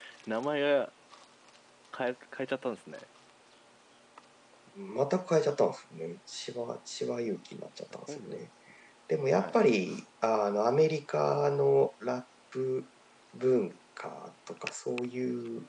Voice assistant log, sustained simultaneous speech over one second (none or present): none